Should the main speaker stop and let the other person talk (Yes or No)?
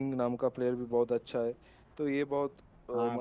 No